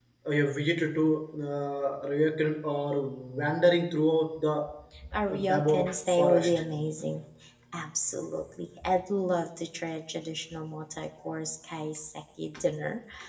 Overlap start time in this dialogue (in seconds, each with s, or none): 5.3 s